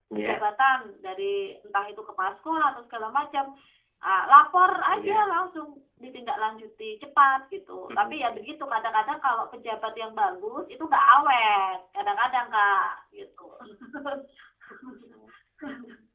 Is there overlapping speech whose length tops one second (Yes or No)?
No